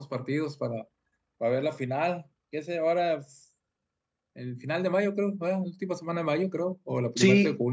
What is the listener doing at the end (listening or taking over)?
taking over